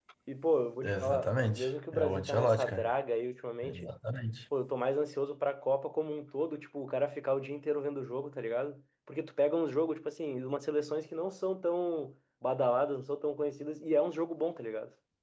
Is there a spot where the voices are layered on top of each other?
Yes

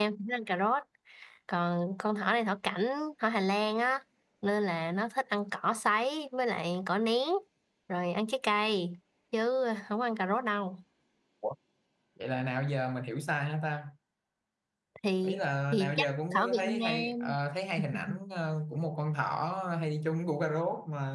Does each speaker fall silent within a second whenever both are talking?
No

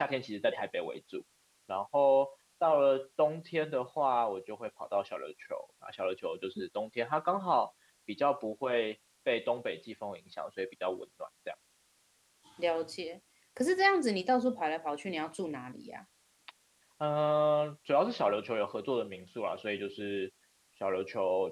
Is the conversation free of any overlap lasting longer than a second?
Yes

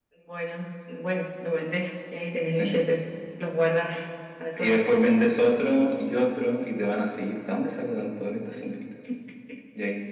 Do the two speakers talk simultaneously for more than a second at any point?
No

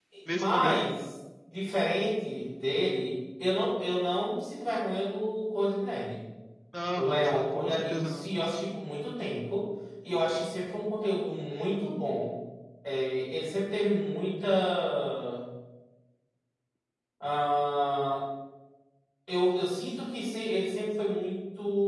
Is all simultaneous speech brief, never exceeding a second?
No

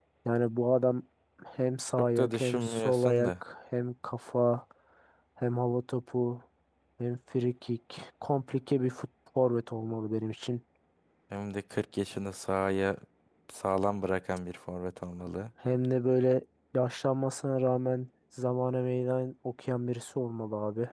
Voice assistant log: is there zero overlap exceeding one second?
No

